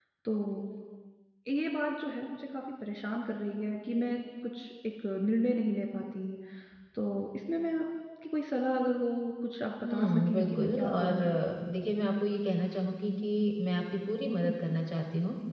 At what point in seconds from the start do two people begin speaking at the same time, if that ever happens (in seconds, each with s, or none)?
9.8 s